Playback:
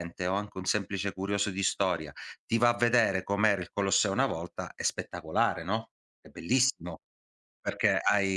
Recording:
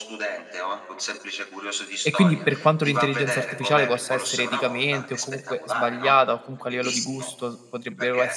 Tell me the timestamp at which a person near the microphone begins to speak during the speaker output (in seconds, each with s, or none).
2.0 s